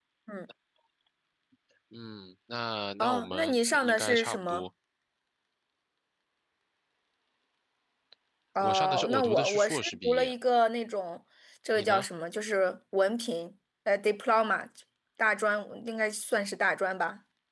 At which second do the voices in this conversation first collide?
3.0 s

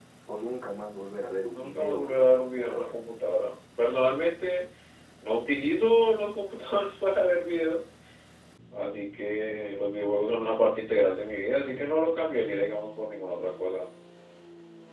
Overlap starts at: 1.5 s

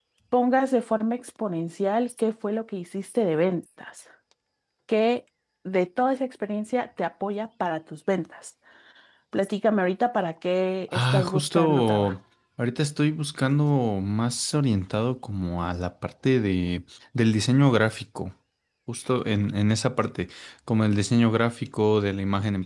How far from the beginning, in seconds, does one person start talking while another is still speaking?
10.9 s

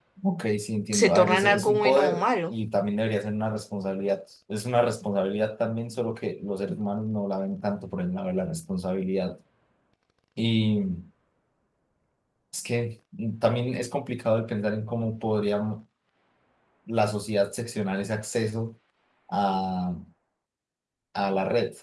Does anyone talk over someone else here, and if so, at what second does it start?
0.9 s

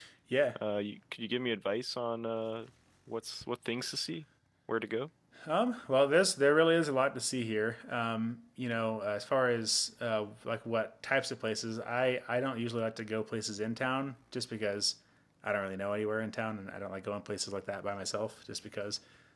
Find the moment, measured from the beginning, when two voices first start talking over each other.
none

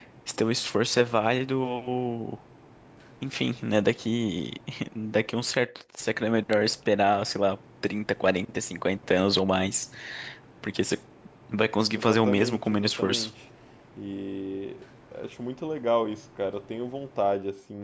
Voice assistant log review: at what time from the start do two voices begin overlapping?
11.9 s

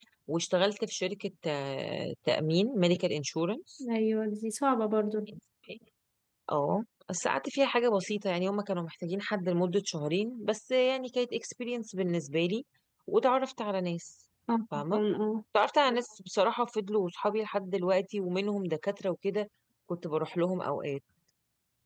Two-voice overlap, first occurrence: none

